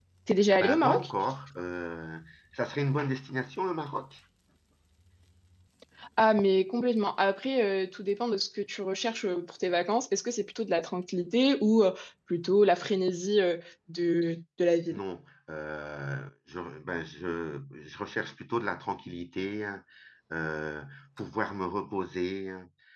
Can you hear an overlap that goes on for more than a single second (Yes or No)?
No